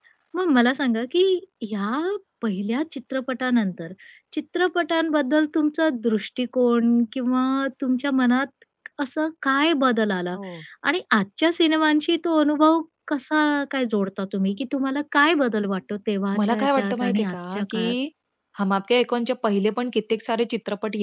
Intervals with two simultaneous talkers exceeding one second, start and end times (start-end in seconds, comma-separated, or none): 16.4-18.0